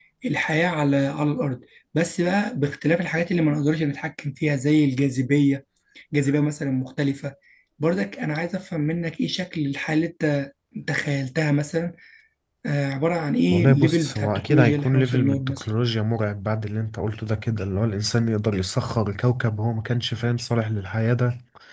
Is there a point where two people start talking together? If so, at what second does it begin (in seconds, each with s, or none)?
13.5 s